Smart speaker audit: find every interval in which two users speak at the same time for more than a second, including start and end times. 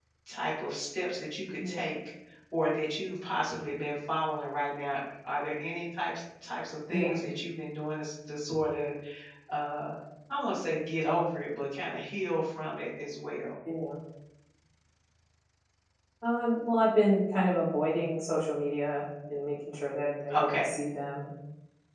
none

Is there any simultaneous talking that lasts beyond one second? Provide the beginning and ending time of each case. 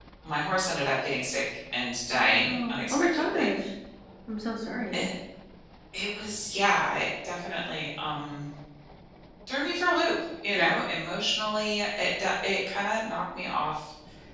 2.1-3.5

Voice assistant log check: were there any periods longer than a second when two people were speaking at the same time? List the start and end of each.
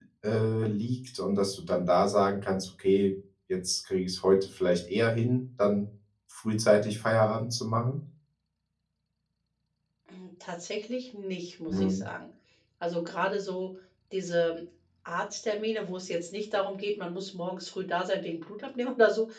none

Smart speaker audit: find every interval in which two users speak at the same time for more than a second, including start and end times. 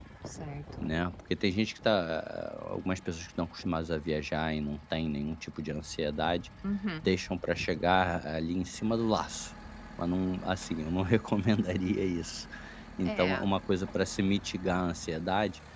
none

